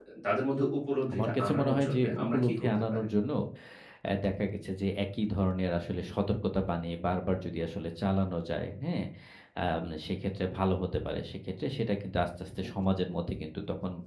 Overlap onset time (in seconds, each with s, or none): 1.1 s